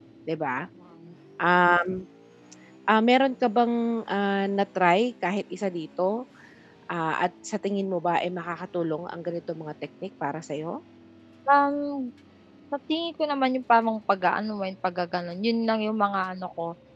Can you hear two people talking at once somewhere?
No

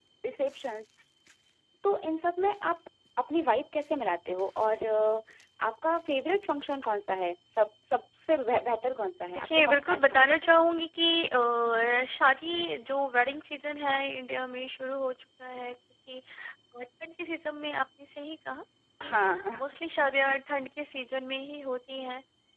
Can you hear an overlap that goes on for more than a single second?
Yes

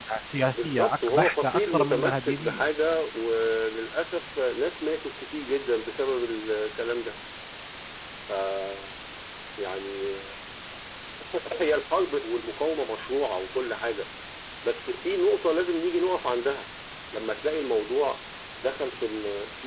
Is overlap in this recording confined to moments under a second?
No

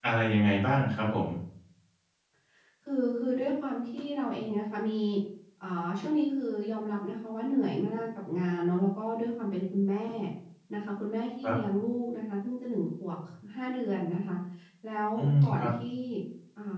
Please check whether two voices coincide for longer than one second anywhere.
No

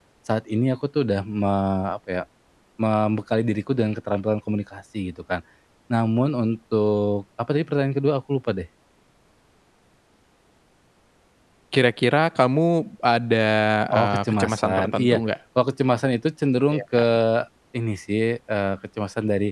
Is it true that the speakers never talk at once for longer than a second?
No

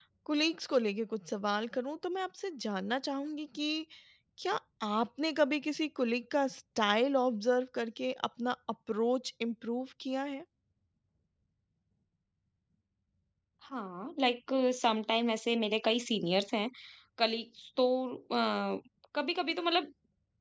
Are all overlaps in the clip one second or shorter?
Yes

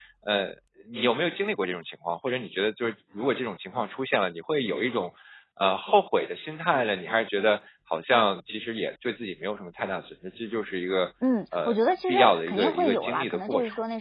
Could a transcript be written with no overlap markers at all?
No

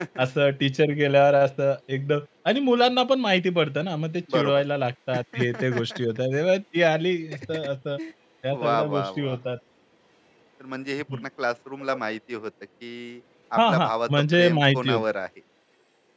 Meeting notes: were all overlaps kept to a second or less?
No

